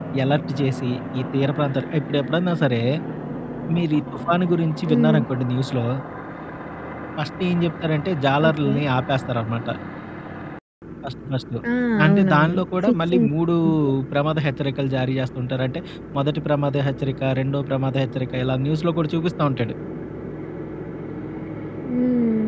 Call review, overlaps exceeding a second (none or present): present